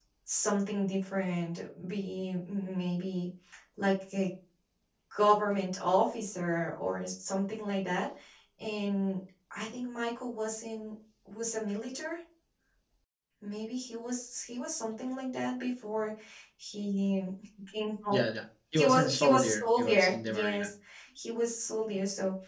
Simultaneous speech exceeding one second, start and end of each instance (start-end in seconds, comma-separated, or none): 18.7-20.7